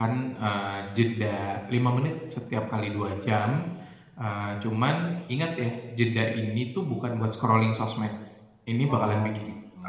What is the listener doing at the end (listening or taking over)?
listening